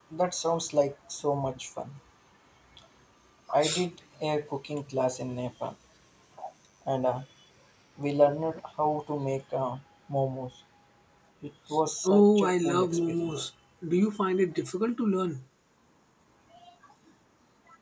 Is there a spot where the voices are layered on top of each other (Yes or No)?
Yes